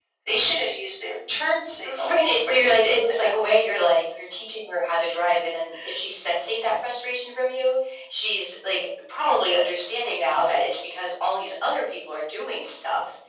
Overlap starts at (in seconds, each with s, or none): 1.8 s